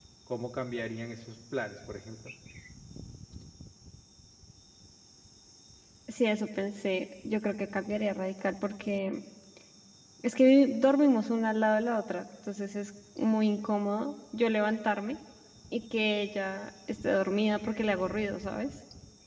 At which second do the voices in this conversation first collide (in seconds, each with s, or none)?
none